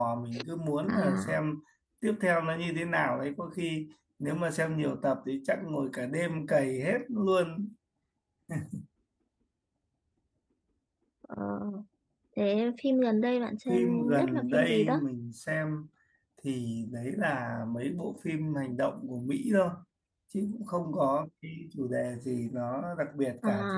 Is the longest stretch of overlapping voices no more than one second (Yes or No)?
No